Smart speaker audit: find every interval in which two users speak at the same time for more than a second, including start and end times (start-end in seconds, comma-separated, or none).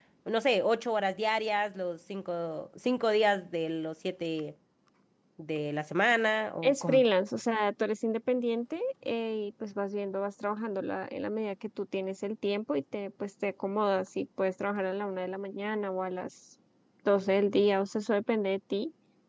none